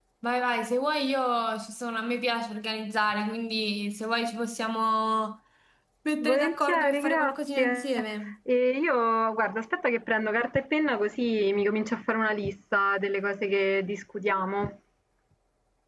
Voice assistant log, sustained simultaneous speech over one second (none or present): present